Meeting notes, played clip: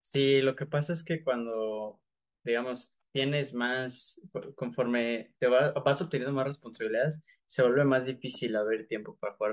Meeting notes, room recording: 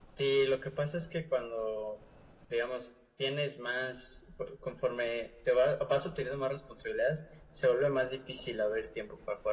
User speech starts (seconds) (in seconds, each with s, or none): none